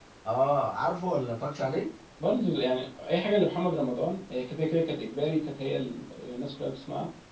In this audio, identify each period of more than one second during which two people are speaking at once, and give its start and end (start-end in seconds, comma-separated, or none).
none